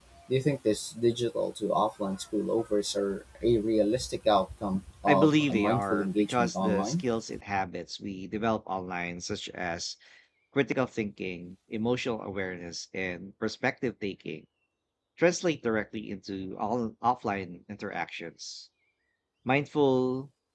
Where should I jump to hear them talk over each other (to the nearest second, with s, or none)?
5 s